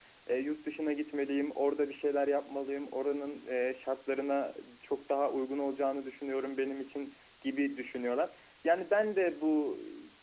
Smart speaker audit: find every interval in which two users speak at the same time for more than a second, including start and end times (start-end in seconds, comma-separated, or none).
none